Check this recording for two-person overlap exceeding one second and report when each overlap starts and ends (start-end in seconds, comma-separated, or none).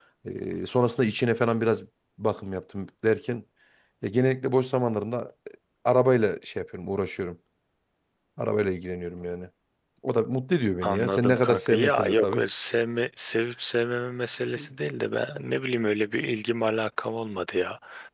10.8-12.4